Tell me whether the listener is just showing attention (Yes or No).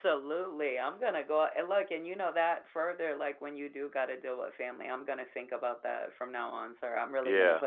No